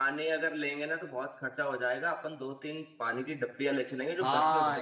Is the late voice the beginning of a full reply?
Yes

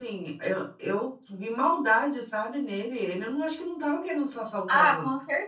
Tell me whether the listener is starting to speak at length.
Yes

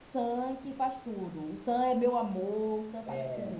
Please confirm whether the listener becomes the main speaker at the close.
Yes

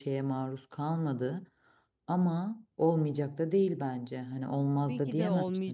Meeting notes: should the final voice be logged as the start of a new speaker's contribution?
Yes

